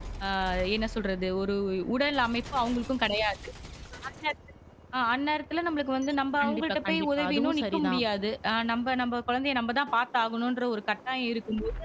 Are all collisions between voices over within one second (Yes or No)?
No